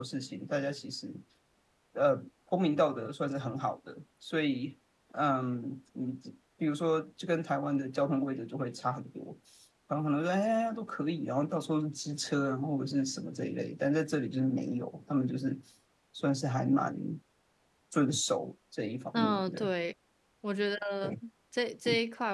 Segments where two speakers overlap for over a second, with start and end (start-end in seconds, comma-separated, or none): none